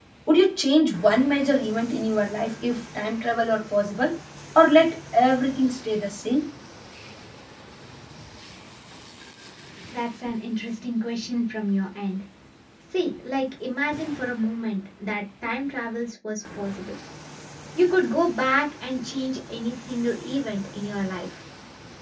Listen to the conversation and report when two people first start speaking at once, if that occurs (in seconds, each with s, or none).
none